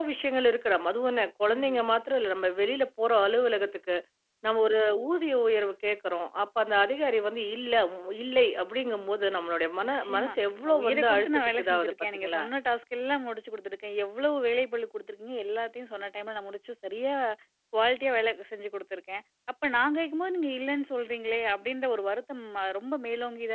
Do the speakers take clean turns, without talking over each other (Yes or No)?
No